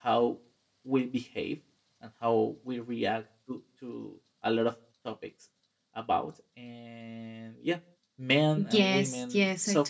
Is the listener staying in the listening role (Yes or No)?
No